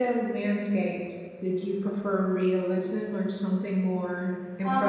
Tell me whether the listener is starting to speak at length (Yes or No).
Yes